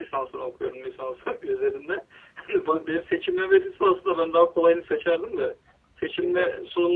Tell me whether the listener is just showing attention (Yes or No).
Yes